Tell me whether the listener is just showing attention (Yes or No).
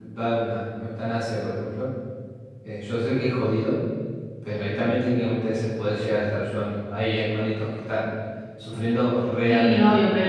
No